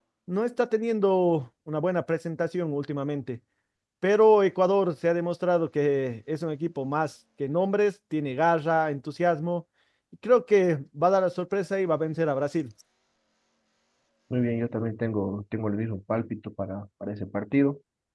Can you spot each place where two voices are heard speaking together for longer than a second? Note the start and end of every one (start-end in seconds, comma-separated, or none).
none